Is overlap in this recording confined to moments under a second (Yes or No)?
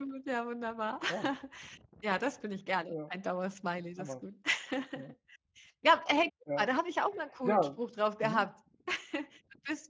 Yes